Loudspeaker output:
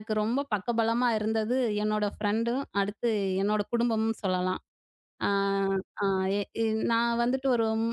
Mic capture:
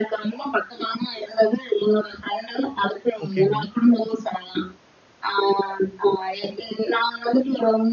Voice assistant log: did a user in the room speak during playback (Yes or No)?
Yes